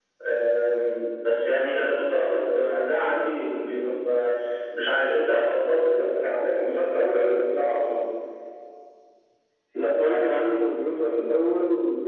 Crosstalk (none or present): none